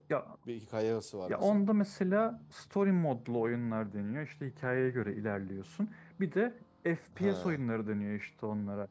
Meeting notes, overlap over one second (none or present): none